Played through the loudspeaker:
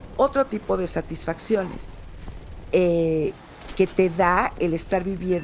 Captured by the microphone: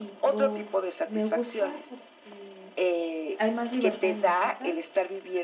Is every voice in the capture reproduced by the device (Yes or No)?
No